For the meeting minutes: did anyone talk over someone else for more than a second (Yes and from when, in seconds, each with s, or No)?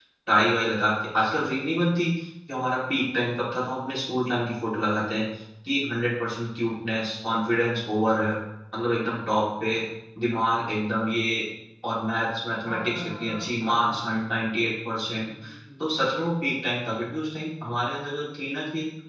Yes, from 12.6 s